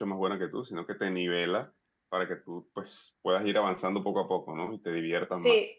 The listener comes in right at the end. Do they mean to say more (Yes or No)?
Yes